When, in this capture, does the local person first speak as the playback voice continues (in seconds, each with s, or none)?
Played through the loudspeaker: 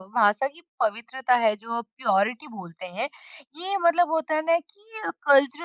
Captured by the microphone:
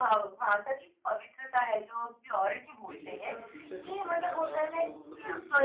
2.9 s